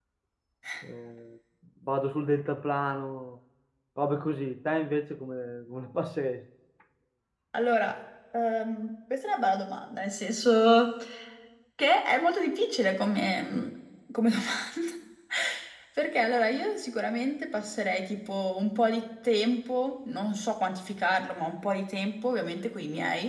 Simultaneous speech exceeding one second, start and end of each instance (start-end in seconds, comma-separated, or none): none